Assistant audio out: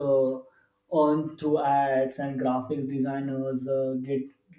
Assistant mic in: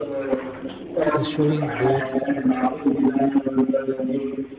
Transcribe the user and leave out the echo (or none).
the showing both